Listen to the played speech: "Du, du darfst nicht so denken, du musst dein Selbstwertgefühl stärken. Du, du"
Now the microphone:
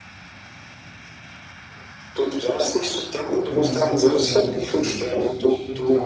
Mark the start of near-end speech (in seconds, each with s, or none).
3.4 s